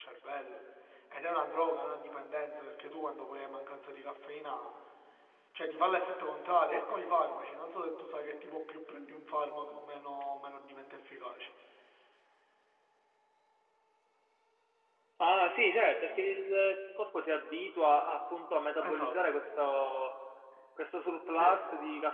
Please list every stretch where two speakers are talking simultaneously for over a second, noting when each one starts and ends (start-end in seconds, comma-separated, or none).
none